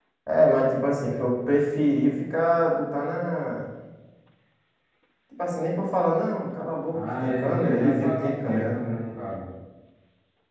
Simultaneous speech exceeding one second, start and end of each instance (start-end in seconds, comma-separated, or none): 6.9-8.8